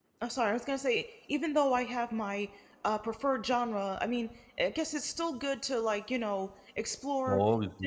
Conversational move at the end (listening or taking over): listening